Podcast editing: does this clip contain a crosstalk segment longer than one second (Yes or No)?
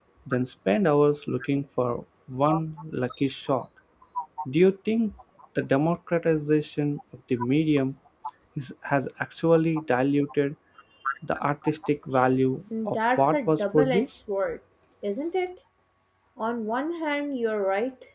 Yes